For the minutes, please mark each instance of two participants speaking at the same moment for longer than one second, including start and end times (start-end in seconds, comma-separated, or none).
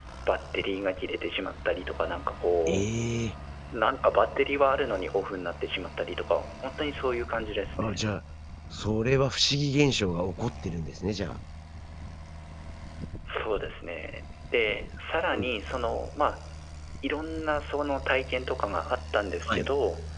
none